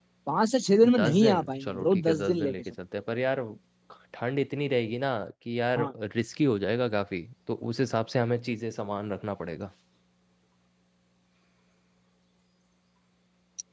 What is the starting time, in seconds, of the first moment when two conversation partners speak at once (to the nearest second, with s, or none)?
1 s